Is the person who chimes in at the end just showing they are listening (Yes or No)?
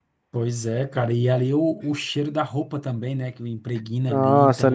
No